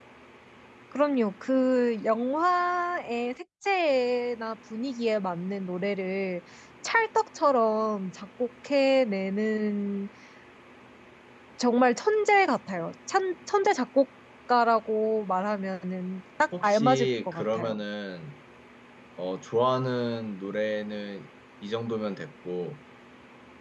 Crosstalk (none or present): present